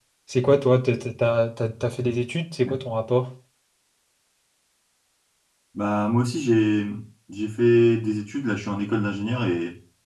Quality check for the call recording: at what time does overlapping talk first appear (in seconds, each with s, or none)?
none